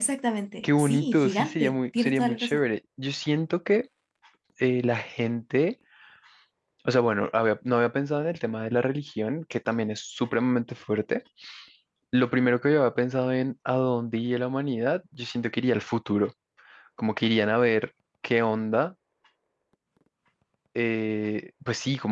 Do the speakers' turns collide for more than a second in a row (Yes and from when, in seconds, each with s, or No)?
Yes, from 0.6 s